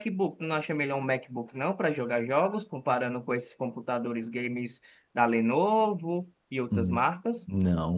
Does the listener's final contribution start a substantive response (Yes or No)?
Yes